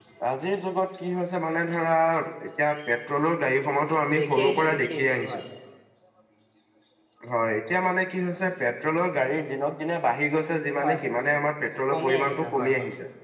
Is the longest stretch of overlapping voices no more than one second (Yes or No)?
No